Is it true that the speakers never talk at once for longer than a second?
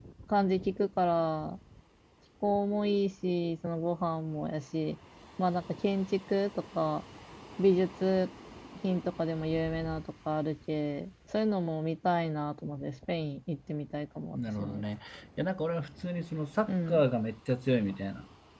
Yes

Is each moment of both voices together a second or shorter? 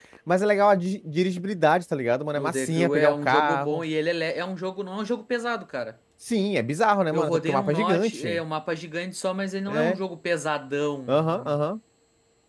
No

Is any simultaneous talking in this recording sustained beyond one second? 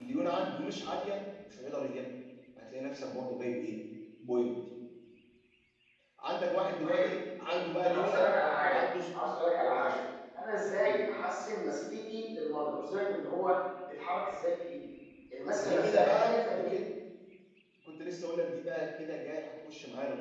Yes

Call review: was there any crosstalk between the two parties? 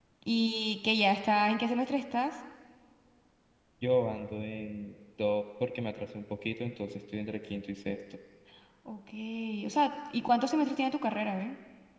No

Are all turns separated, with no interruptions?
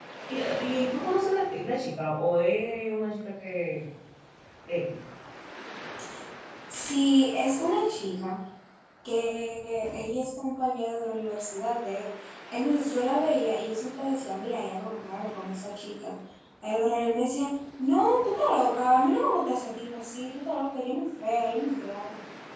Yes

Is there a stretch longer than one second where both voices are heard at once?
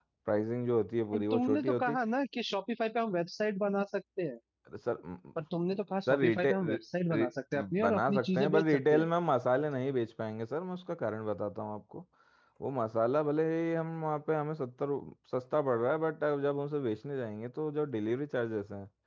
Yes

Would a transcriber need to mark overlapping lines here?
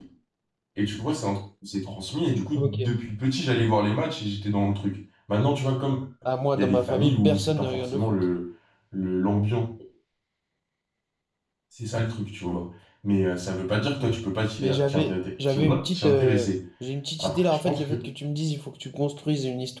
Yes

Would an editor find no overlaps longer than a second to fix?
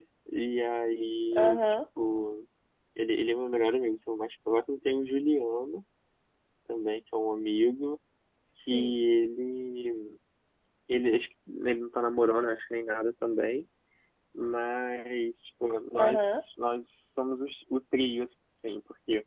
Yes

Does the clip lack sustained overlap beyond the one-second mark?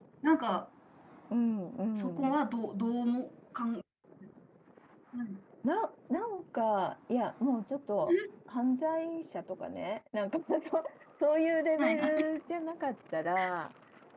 Yes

